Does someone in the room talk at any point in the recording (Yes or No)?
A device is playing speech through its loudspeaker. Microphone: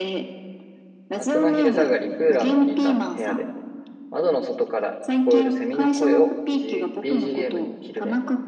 Yes